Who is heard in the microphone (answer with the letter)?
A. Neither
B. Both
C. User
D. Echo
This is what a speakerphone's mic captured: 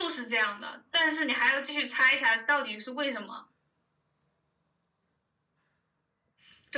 D